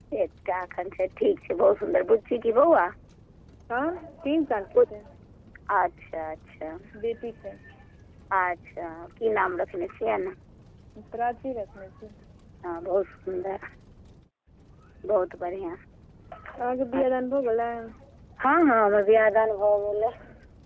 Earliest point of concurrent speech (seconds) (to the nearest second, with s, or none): none